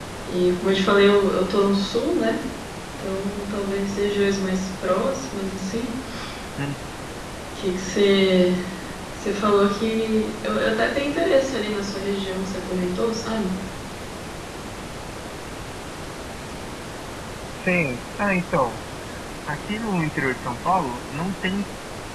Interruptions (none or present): none